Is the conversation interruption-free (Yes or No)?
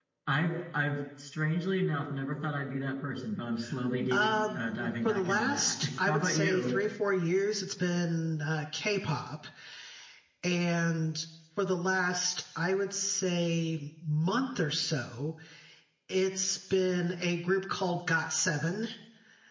No